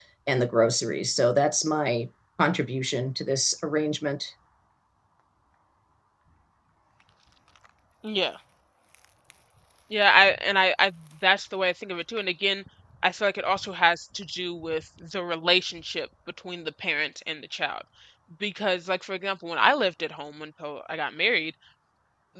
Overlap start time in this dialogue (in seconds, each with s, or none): none